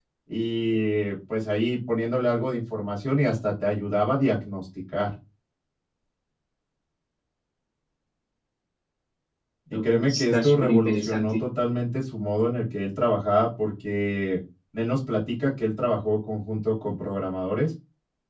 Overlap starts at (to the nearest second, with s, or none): 10 s